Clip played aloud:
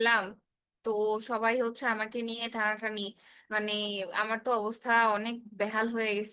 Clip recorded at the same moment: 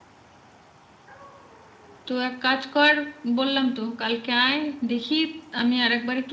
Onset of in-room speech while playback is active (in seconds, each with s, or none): 2.0 s